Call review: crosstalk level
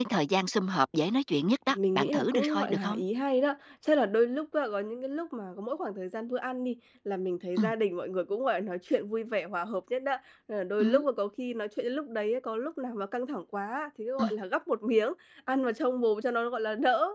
present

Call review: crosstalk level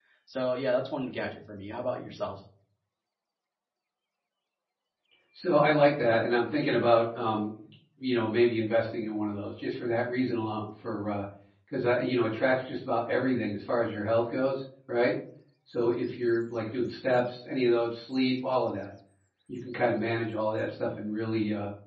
none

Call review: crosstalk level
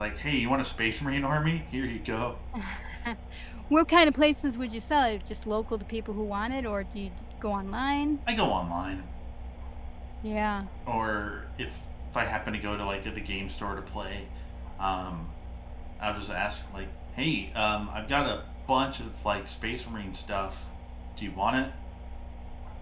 none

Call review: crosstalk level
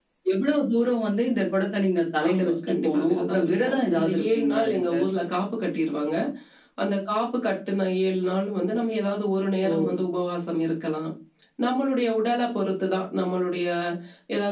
present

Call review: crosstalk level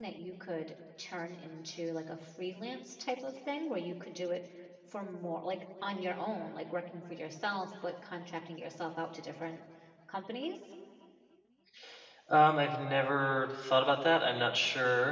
none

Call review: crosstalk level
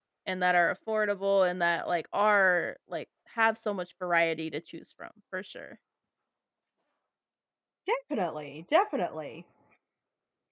none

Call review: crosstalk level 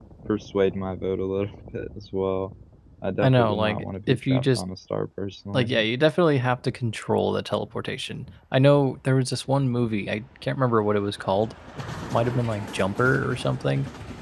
present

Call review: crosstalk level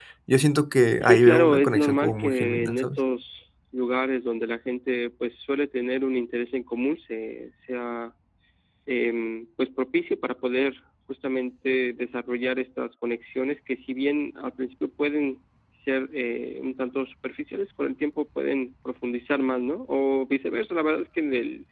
present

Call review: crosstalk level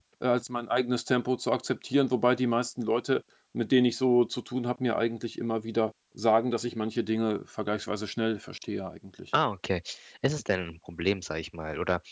none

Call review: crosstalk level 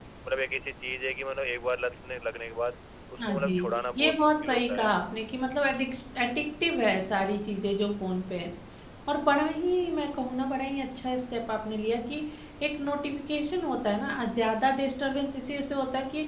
present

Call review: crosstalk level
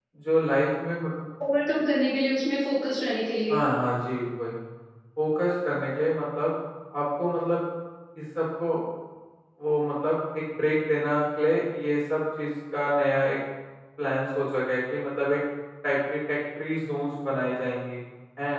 none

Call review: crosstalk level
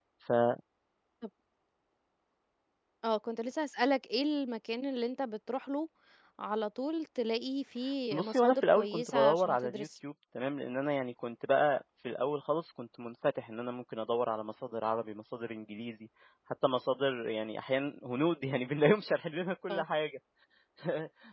present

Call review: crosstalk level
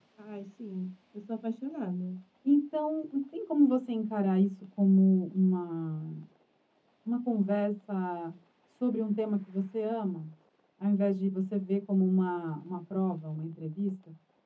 none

